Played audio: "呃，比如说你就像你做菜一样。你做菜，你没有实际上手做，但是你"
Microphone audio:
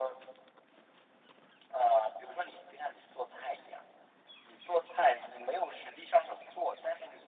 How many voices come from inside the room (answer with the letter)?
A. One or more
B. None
B